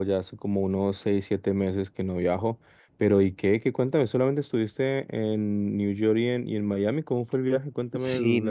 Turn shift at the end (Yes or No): Yes